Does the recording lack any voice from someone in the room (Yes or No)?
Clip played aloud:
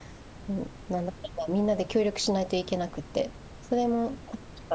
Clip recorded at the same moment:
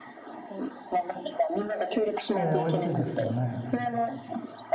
No